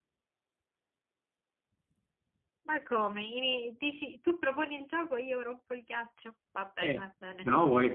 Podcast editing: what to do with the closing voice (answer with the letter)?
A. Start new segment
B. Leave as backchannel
A